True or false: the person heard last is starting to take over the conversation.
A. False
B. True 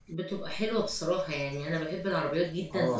A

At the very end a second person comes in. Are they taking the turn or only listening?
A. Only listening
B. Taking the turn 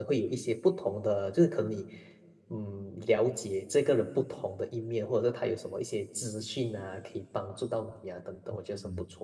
B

